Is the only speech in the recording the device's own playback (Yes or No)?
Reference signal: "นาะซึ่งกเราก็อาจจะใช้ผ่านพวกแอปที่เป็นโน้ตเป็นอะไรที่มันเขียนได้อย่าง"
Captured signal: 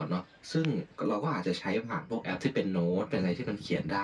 Yes